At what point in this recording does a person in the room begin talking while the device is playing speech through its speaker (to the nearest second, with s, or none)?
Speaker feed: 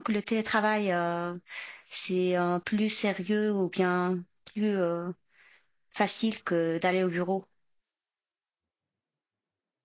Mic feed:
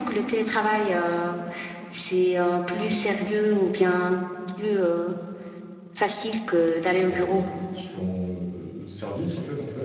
7 s